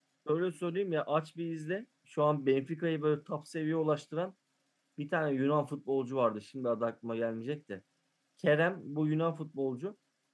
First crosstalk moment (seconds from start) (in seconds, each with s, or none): none